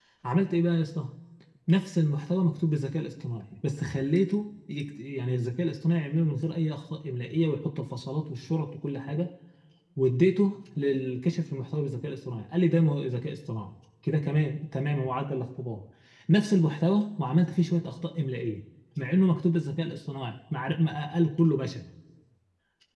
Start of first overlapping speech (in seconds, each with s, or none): none